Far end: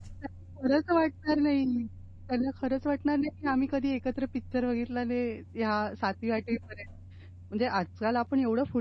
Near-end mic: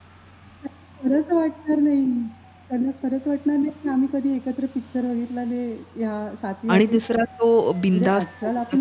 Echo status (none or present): present